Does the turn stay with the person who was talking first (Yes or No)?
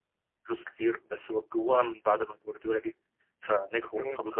Yes